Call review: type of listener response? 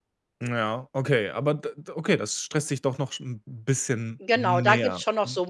taking over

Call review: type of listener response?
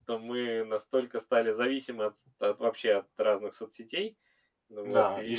taking over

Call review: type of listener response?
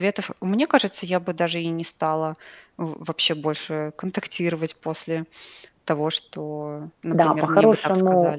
taking over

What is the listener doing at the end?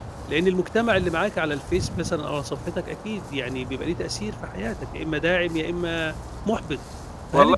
listening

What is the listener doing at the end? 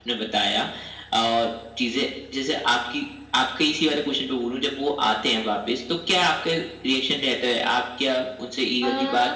listening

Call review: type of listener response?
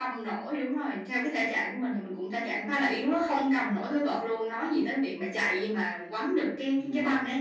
taking over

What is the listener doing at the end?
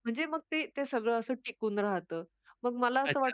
listening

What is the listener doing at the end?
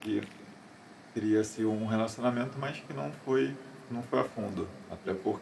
listening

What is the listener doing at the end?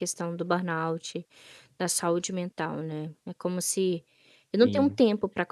listening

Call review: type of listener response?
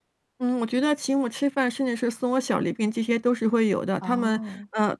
listening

